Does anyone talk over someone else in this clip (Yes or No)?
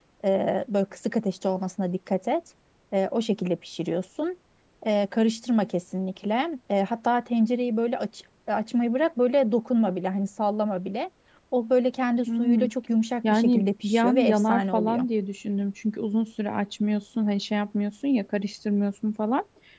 Yes